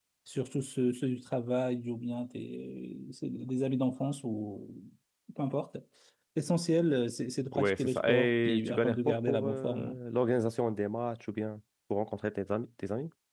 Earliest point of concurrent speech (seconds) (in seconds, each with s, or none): 7.5 s